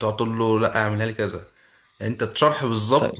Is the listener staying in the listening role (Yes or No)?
Yes